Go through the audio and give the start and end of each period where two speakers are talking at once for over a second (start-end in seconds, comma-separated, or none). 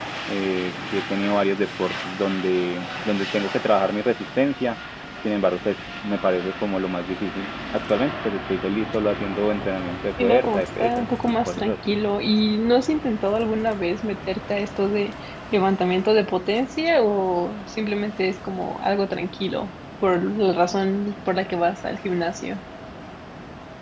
10.2-11.8